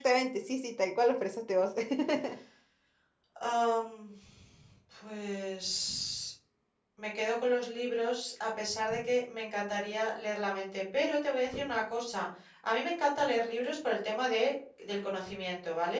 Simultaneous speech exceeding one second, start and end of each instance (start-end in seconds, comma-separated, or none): none